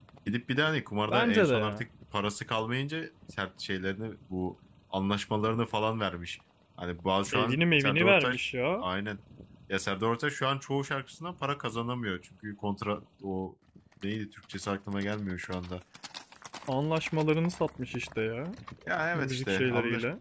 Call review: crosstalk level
present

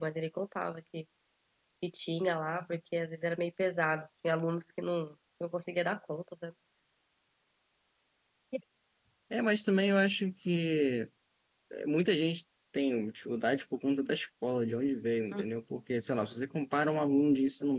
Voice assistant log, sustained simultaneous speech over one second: none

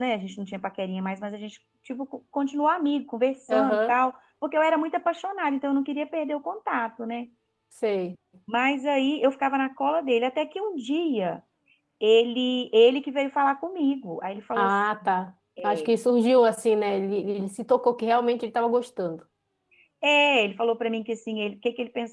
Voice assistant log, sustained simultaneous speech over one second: none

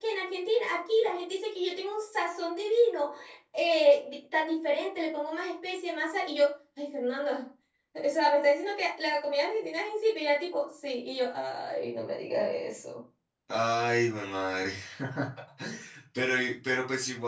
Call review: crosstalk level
none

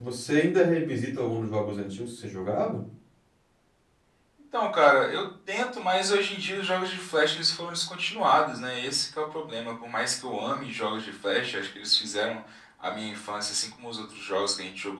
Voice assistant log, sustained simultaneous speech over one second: none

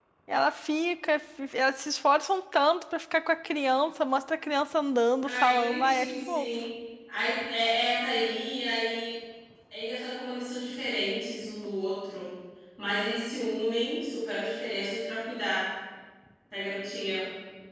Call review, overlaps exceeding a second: present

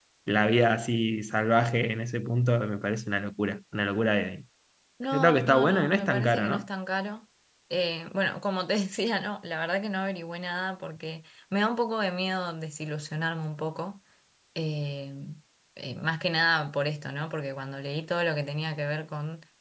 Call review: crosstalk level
present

